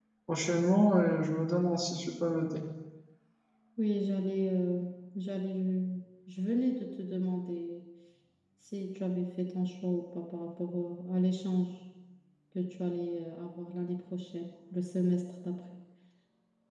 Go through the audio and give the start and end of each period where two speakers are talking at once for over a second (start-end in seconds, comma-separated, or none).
none